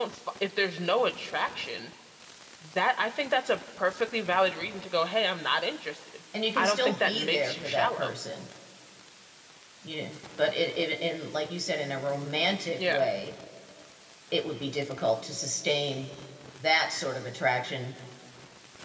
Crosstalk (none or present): present